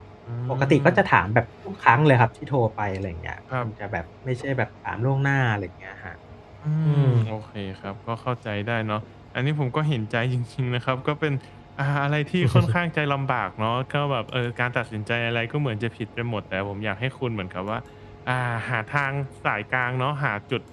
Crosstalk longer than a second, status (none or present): none